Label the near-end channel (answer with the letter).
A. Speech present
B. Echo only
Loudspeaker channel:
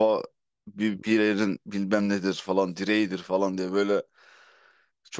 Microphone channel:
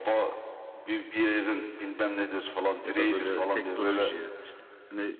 A